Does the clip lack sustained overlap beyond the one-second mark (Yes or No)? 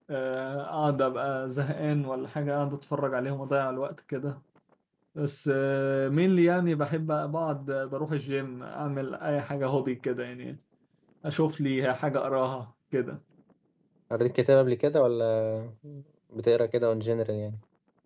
Yes